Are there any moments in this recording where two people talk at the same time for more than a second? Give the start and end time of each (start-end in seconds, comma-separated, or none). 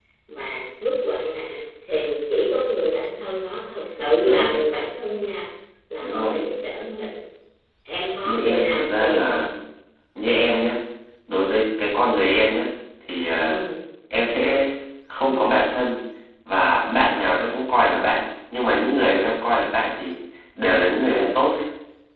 8.2-9.5